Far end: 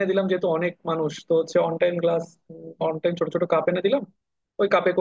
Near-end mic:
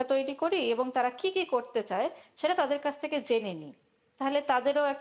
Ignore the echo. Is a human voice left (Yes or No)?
Yes